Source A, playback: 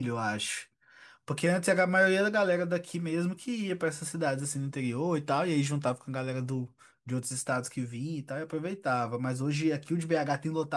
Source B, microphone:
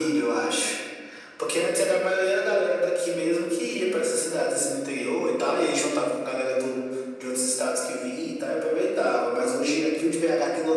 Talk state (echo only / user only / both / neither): echo only